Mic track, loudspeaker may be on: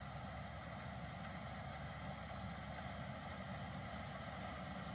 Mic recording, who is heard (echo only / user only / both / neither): neither